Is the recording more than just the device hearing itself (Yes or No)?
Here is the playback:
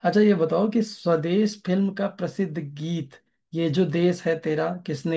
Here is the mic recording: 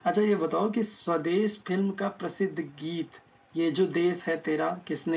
No